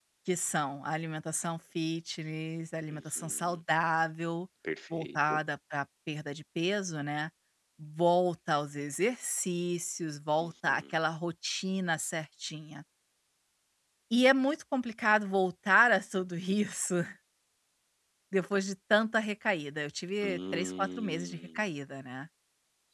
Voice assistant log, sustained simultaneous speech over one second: present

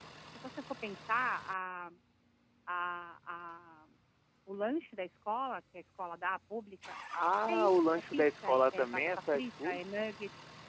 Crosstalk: present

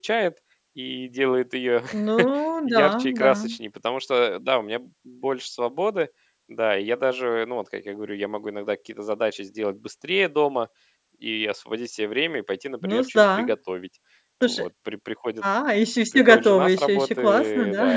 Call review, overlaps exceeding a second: present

